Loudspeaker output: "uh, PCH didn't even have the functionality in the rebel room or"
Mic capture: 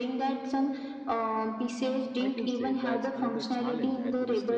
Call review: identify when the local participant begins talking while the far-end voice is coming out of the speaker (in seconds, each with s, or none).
2.2 s